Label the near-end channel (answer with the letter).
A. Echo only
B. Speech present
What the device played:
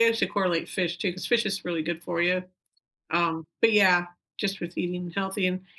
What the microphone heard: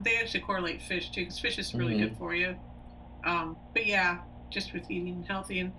B